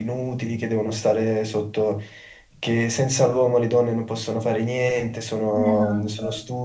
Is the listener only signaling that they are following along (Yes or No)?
Yes